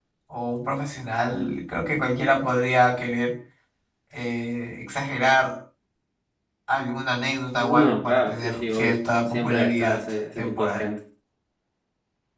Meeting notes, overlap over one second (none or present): present